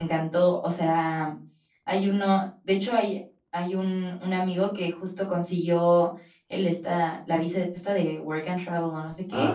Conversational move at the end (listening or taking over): listening